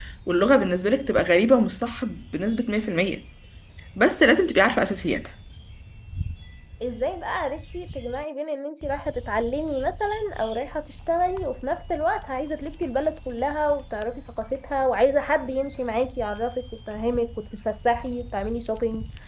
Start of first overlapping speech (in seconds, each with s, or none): none